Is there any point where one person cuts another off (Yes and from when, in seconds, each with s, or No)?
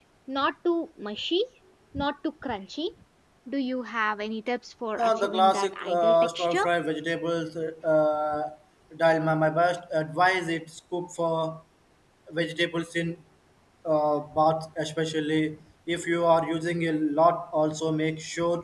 Yes, from 5.0 s